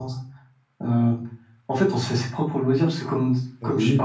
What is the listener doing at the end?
listening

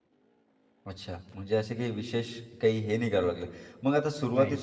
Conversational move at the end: listening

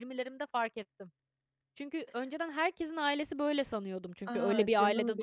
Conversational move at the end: taking over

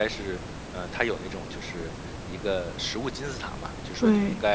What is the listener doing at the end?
listening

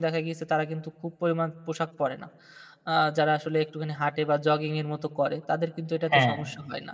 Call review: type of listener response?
listening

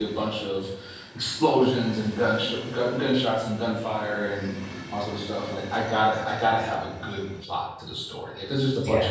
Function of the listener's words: listening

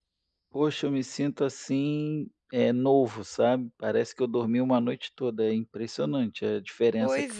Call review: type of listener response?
taking over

